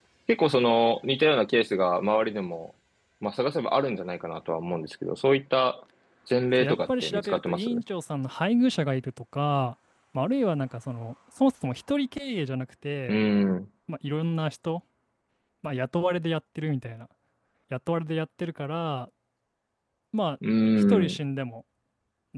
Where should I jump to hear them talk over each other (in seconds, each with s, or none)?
6.6 s